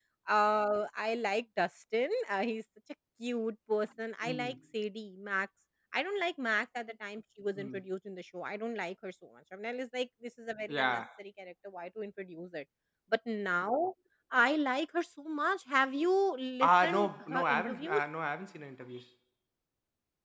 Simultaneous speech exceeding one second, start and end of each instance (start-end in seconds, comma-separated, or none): 16.6-18.0